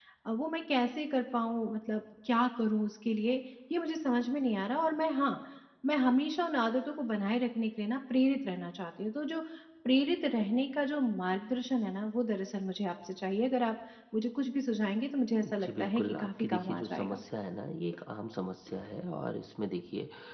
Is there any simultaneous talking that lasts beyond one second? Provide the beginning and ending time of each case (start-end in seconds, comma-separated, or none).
15.4-17.2